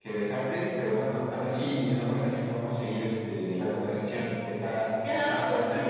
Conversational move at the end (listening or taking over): taking over